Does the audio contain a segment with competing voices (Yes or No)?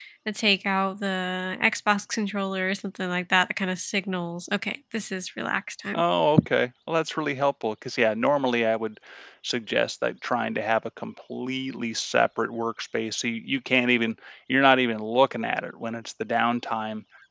No